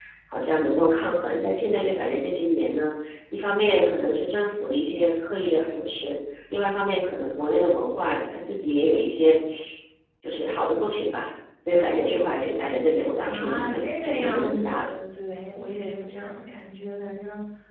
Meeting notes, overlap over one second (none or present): present